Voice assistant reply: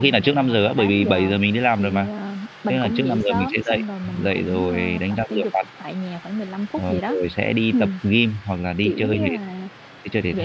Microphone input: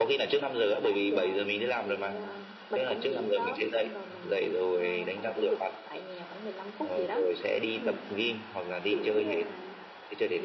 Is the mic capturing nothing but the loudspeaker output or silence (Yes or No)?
Yes